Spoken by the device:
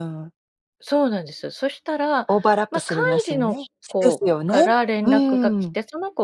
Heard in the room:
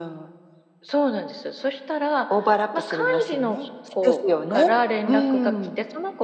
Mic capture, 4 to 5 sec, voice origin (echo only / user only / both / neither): echo only